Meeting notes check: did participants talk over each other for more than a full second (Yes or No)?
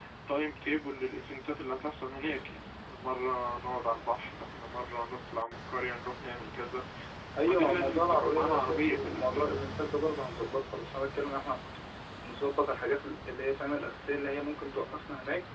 Yes